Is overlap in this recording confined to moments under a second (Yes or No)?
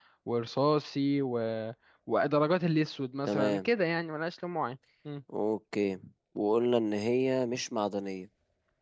Yes